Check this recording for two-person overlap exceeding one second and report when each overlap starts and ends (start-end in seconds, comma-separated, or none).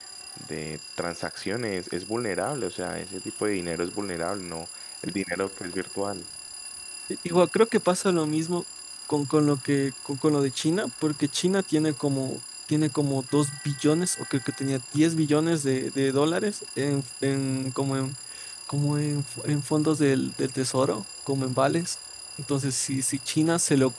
none